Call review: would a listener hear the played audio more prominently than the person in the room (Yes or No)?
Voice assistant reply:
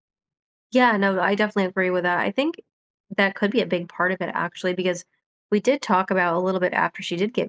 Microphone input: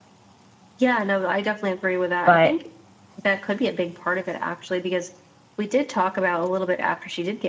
No